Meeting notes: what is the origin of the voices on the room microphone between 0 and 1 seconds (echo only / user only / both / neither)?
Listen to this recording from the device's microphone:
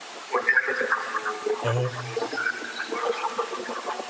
echo only